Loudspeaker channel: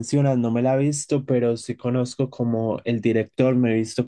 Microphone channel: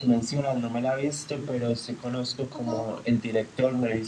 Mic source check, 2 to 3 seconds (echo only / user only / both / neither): both